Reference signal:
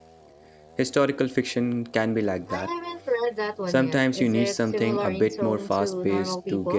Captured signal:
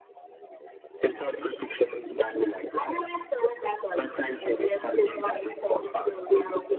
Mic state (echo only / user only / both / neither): echo only